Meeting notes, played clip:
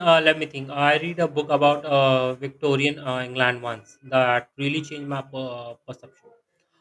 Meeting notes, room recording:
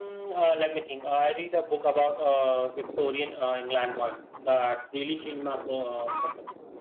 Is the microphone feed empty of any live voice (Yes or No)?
Yes